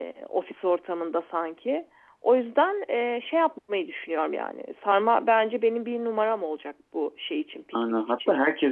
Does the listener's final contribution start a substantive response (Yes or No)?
Yes